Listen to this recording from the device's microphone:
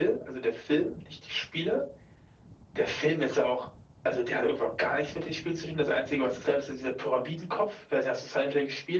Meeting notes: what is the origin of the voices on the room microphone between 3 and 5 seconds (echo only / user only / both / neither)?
echo only